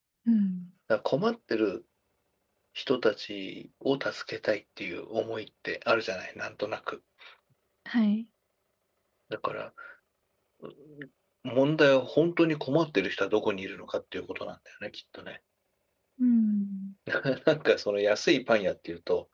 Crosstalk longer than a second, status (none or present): none